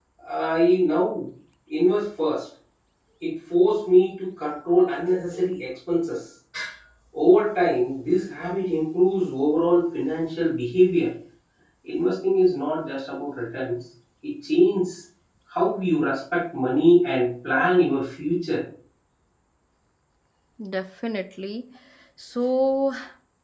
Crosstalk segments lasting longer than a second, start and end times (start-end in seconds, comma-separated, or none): none